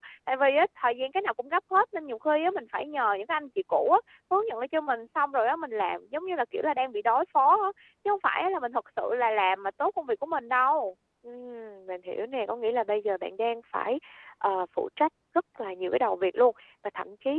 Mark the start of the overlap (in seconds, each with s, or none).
none